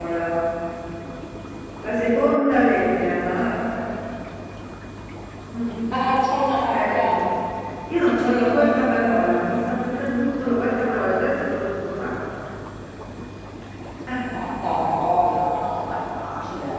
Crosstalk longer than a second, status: none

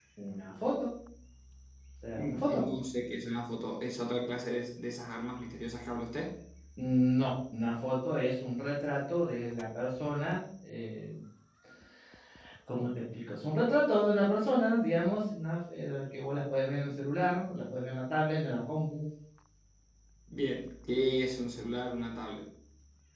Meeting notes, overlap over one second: none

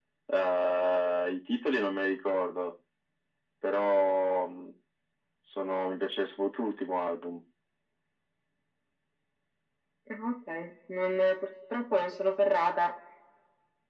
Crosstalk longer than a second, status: none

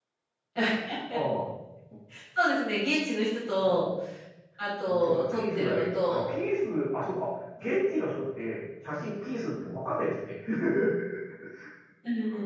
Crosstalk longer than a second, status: present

